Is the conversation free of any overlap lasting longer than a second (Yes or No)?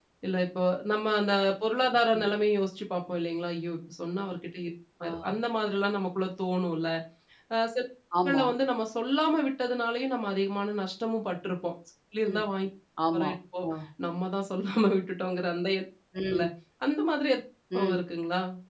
Yes